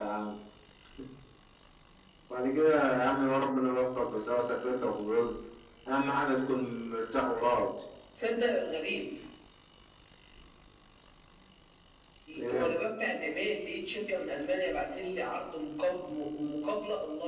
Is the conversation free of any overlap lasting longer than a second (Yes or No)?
Yes